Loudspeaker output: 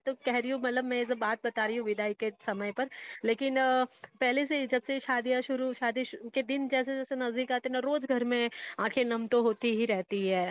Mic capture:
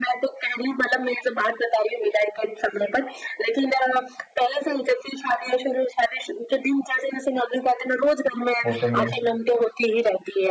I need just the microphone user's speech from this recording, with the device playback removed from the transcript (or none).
وہ تو میں نے